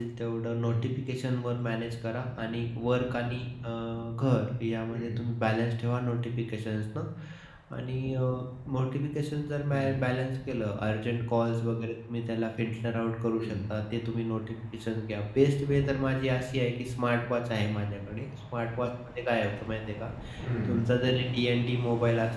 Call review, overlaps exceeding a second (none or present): none